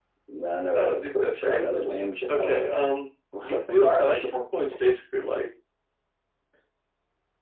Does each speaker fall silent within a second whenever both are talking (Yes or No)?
No